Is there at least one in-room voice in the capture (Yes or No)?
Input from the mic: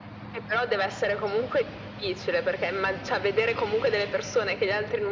No